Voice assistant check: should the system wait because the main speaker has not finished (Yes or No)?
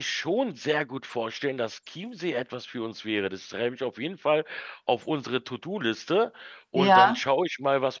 Yes